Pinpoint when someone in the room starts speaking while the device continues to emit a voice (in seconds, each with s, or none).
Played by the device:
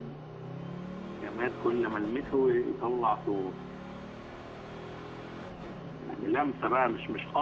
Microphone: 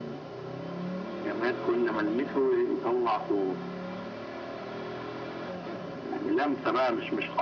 none